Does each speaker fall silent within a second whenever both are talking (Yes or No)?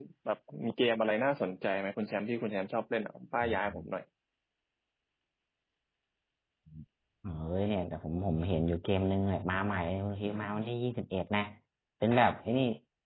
Yes